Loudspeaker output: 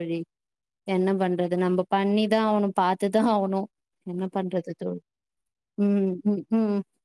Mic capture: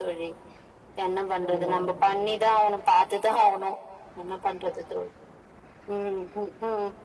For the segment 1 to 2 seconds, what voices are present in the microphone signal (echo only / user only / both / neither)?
both